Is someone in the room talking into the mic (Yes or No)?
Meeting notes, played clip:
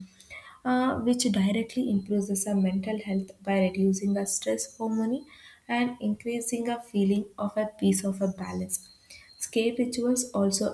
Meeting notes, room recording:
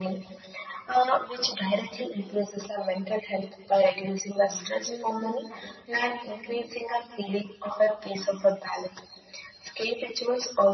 Yes